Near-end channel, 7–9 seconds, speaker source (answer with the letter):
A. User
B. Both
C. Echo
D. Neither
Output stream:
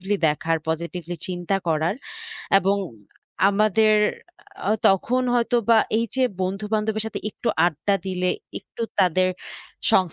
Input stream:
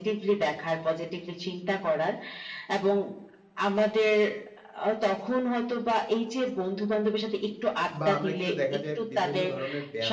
B